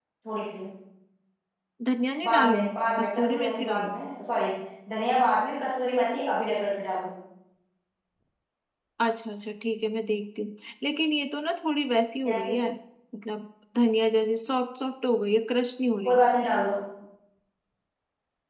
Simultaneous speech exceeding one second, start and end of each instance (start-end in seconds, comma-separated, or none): 2.2-4.0